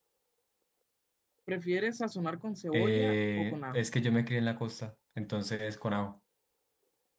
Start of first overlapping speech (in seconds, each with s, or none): 2.7 s